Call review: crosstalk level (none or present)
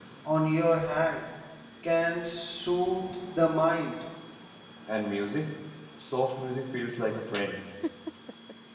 none